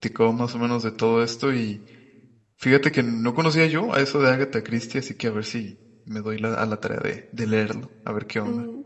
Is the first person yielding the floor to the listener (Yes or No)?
Yes